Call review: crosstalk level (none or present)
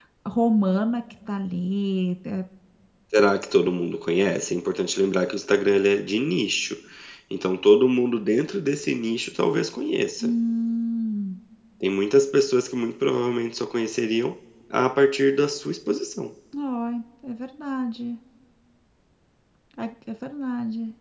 none